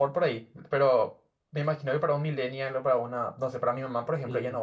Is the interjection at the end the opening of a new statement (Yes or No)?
Yes